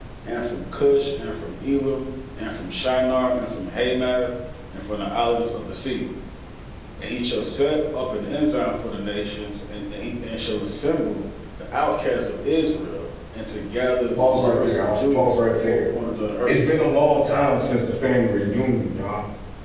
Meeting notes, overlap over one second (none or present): present